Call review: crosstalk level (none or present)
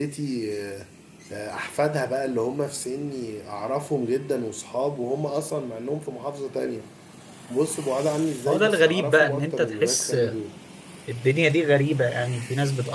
present